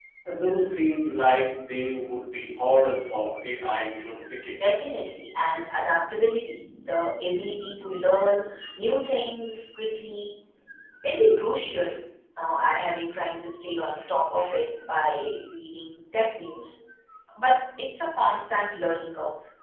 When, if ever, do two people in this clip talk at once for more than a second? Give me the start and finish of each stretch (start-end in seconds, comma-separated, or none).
none